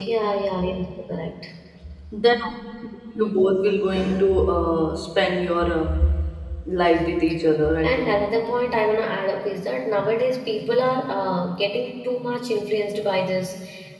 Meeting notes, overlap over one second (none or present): none